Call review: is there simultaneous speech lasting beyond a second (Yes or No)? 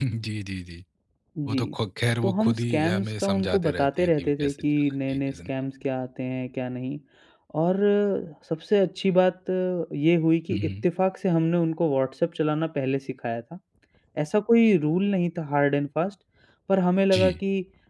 Yes